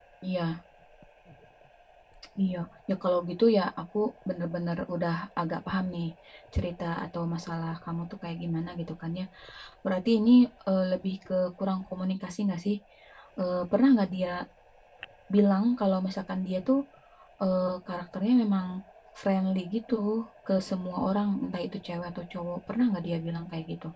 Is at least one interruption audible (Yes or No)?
No